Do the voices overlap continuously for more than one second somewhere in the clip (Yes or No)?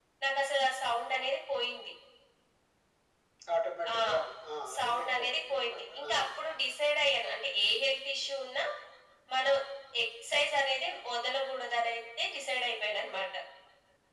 Yes